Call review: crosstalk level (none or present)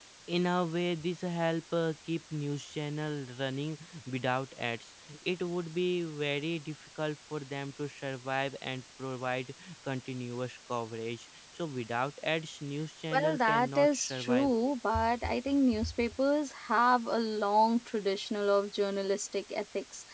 present